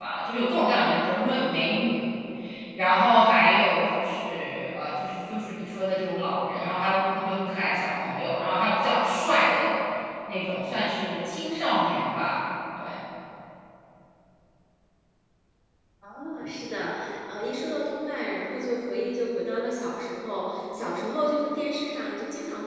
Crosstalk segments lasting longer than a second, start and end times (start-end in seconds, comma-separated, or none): none